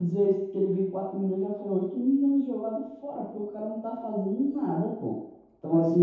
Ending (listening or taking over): listening